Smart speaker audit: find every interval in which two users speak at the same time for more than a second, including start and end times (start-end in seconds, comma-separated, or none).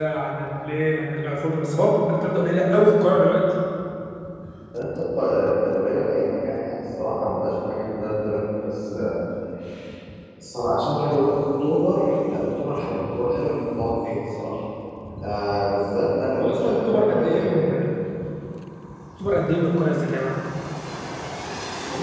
16.4-17.7